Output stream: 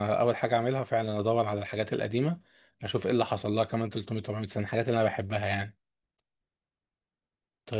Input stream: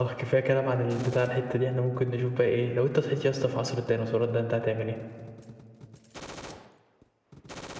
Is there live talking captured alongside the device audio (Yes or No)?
Yes